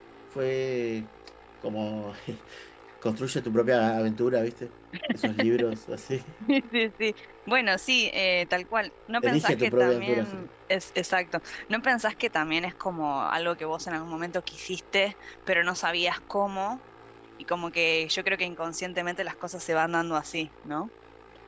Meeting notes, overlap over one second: present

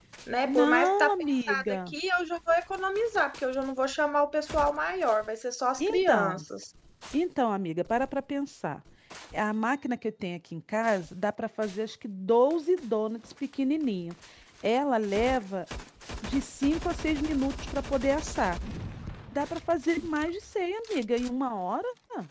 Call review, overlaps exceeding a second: present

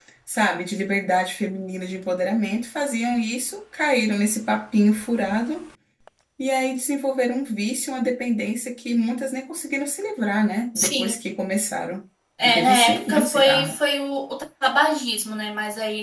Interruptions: present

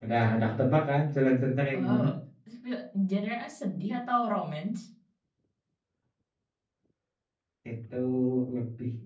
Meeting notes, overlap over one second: none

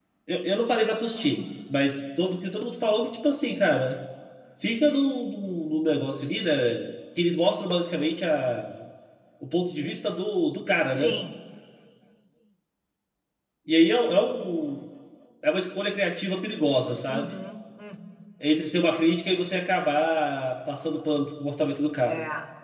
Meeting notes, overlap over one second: none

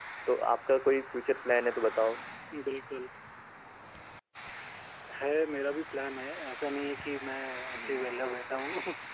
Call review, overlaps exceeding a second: none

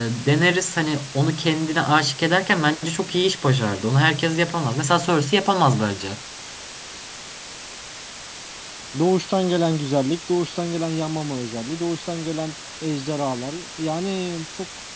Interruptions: none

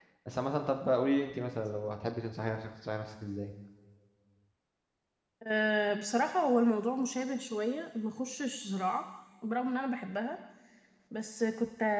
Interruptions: none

